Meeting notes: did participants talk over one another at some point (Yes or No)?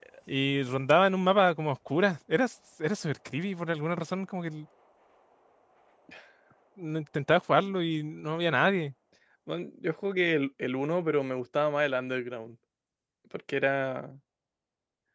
No